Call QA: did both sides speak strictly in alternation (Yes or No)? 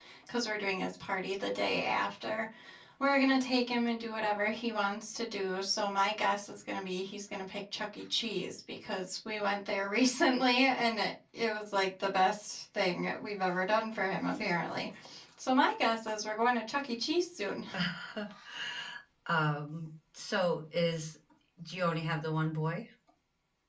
Yes